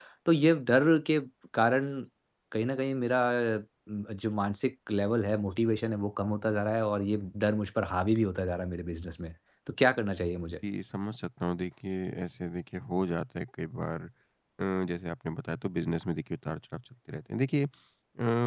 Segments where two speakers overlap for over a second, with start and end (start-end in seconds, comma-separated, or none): none